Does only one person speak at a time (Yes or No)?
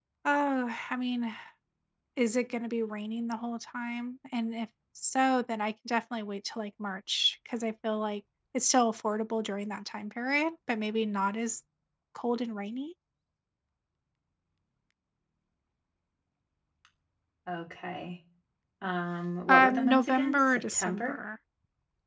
No